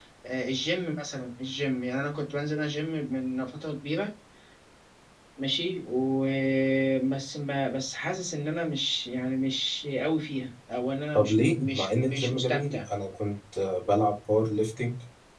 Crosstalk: present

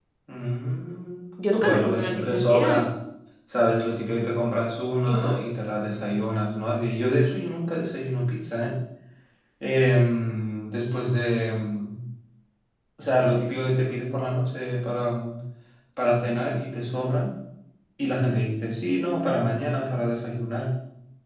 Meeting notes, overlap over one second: present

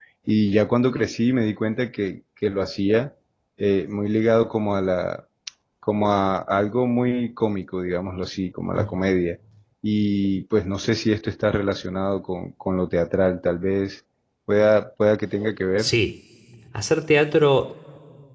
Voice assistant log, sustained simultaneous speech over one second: none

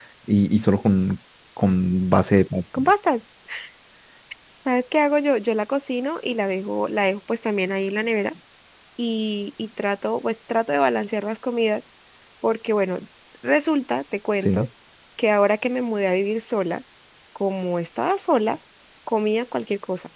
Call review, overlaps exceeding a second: none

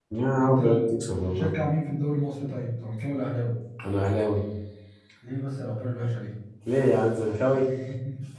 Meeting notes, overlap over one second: none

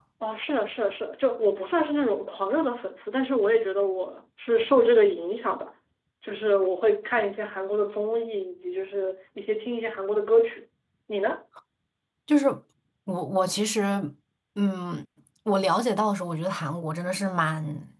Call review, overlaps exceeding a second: none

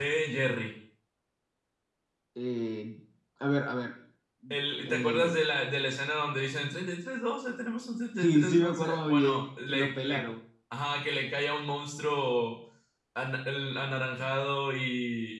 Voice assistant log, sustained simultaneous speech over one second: present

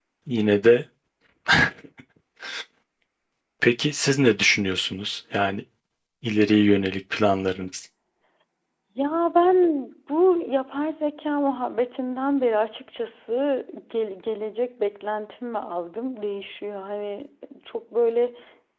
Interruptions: none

